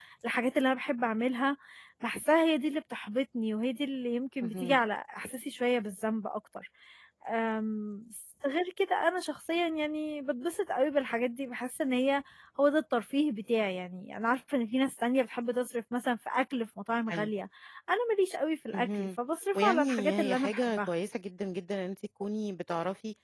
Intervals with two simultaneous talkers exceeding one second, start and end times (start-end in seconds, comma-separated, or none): 19.6-20.9